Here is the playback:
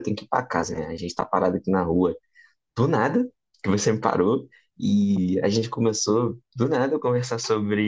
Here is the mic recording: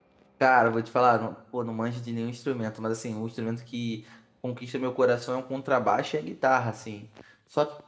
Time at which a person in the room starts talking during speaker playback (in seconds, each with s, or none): 0.4 s